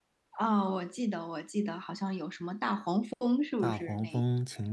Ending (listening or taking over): taking over